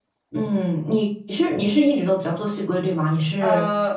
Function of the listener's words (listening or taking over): taking over